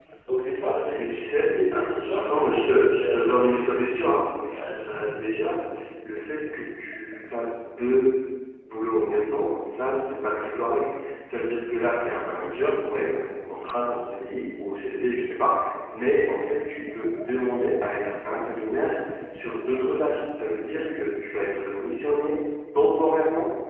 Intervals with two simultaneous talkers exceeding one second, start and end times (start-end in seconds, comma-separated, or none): 0.9-3.4